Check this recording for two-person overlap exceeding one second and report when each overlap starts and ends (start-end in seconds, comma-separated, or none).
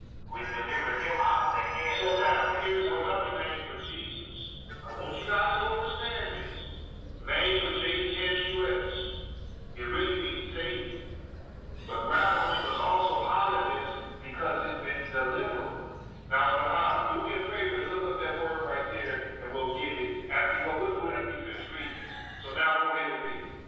1.9-3.3